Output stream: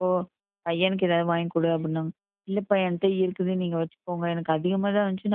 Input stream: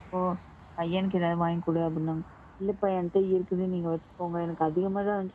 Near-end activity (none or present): none